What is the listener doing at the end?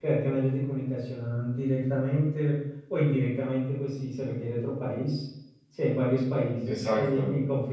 listening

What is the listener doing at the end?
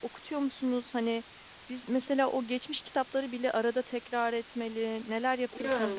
taking over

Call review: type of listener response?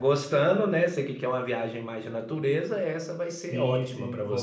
taking over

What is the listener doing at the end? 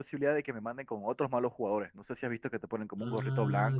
taking over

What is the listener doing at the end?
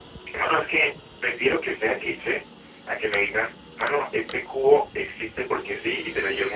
taking over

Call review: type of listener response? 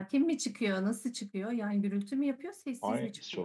taking over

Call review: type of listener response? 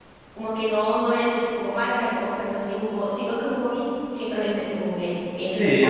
taking over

